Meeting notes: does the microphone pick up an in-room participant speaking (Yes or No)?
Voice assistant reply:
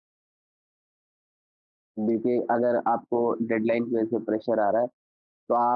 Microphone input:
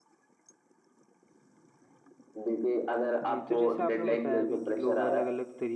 Yes